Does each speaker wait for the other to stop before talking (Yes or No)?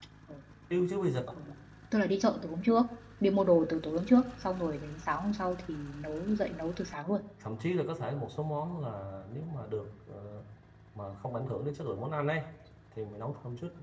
Yes